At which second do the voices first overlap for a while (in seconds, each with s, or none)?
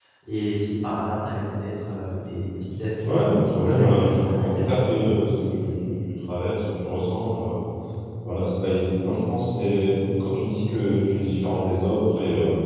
3.0 s